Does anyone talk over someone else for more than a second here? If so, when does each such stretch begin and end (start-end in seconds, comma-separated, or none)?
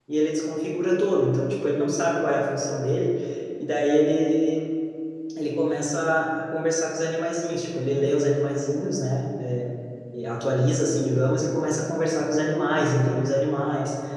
none